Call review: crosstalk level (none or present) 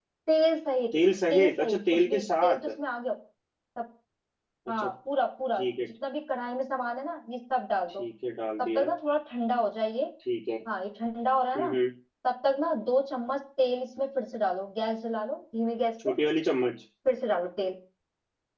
present